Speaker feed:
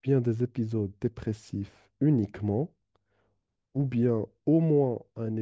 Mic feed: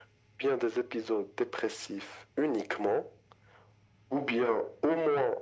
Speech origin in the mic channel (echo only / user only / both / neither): echo only